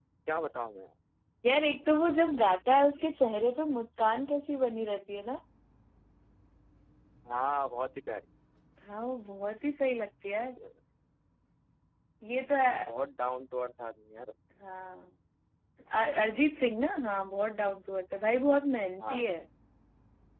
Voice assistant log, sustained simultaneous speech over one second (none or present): none